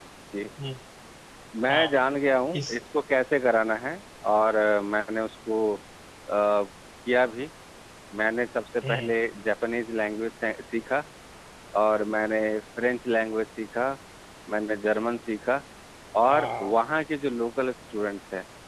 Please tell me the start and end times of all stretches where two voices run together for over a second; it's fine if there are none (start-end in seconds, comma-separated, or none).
none